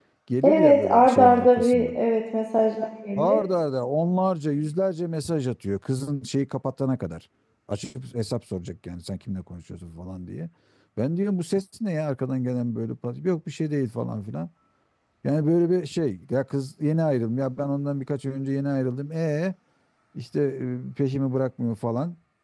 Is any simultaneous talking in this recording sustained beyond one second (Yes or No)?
Yes